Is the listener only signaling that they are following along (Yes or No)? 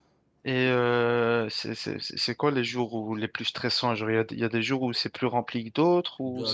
No